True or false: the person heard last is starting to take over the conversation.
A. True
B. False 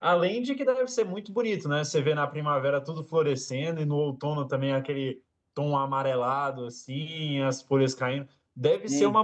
B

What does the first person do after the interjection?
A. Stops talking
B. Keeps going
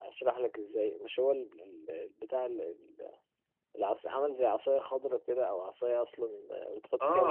A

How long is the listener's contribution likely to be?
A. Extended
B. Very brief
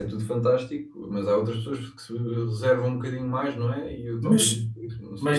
A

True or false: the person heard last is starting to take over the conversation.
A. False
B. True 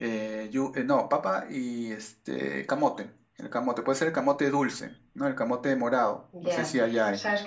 B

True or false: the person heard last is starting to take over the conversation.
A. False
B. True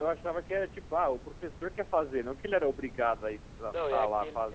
B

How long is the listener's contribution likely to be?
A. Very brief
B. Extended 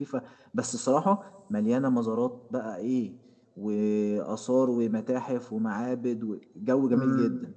B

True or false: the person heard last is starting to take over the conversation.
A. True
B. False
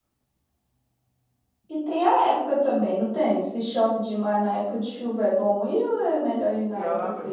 A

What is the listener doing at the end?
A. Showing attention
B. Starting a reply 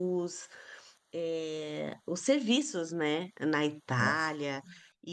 A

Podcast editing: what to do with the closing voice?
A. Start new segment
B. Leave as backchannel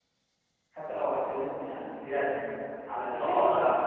A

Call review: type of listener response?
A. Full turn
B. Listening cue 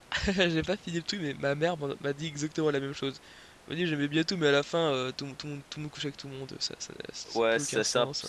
A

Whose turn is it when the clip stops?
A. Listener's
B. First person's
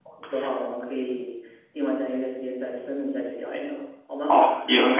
A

